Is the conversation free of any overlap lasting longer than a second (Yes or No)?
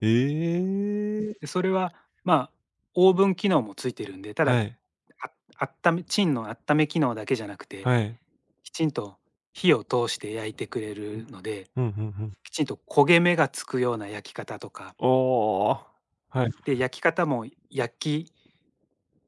Yes